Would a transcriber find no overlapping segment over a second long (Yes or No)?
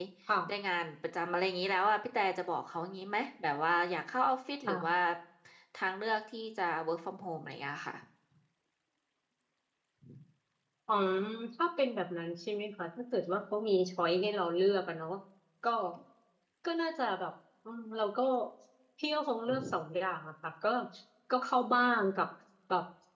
Yes